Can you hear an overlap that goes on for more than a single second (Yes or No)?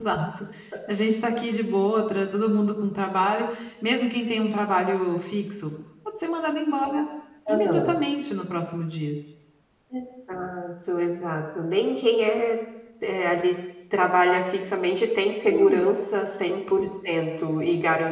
No